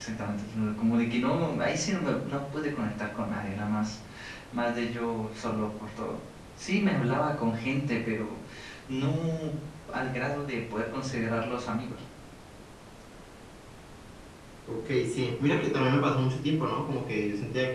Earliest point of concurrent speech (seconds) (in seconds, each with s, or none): none